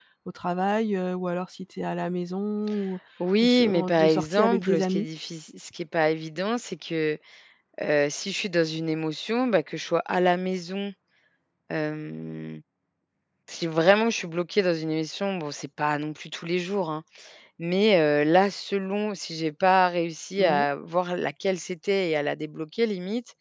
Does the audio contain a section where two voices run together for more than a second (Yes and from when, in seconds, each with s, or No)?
Yes, from 3.4 s